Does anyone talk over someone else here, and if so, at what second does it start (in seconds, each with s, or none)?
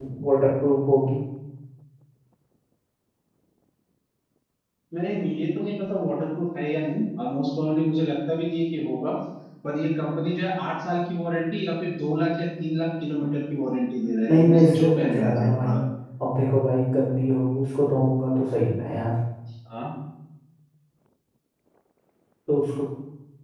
14.3 s